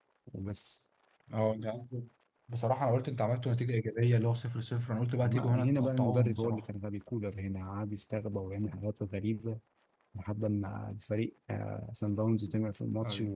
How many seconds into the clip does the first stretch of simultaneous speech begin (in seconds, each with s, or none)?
5.2 s